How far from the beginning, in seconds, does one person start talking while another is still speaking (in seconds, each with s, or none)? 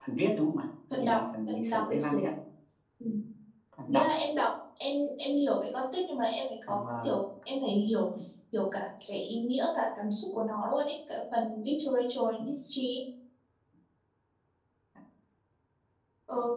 1.0 s